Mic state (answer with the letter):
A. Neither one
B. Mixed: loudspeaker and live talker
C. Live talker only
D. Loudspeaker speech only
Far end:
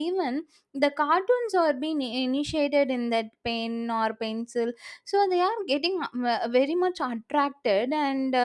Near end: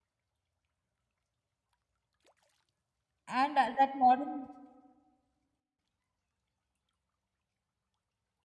C